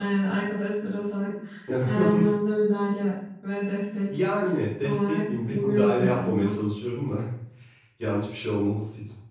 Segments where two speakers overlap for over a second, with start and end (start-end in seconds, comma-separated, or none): 4.8-6.6